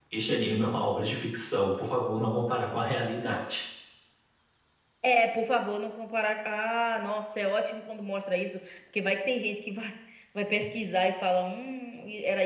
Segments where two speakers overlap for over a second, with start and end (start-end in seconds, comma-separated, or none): none